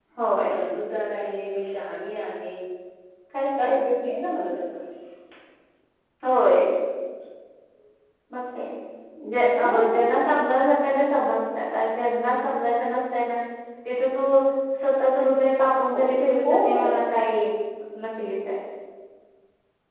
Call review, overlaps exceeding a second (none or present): none